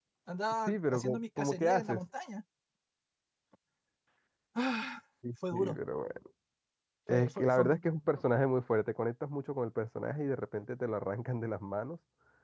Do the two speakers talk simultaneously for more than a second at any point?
Yes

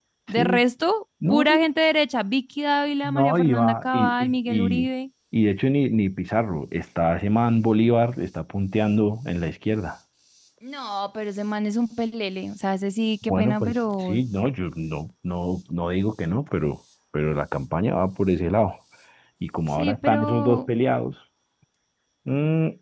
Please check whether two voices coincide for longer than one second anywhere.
Yes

